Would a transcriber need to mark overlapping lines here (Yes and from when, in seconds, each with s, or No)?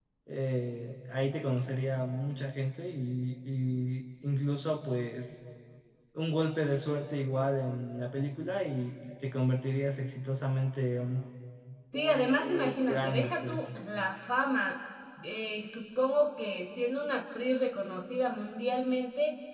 Yes, from 11.9 s